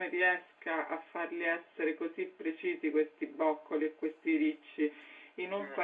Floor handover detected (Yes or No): No